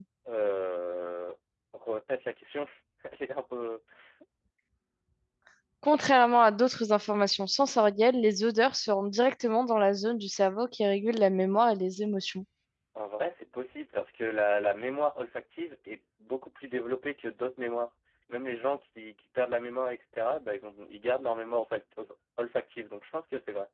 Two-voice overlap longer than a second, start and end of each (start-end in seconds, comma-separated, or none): none